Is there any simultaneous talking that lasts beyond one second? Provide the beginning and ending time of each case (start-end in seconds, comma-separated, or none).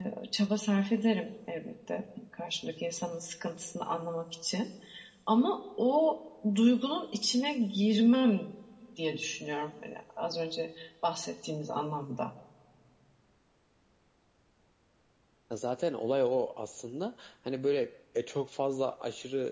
none